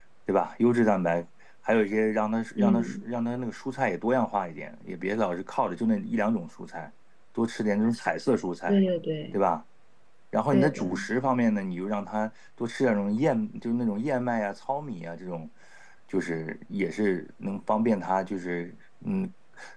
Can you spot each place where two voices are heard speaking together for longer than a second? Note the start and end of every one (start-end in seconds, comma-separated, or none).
none